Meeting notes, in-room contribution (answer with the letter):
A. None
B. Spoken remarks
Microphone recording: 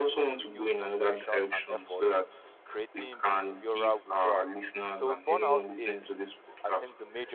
B